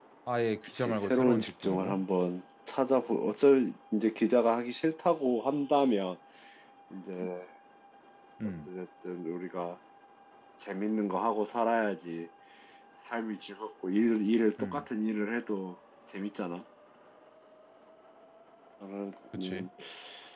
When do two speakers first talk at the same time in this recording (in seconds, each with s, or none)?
0.8 s